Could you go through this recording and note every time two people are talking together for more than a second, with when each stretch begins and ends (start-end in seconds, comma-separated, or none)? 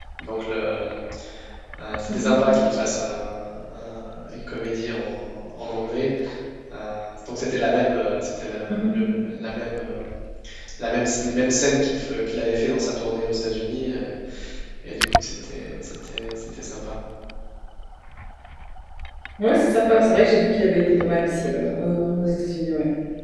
none